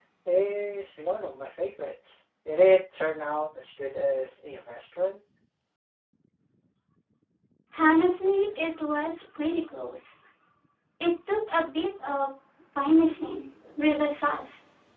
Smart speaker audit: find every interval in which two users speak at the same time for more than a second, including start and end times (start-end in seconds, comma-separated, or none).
none